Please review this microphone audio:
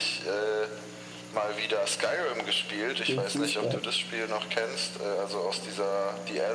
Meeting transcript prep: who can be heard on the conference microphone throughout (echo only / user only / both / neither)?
both